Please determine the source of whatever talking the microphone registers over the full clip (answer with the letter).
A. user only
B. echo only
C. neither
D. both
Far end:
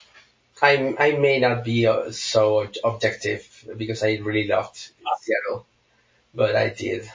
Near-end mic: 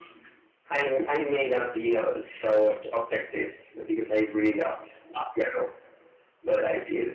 B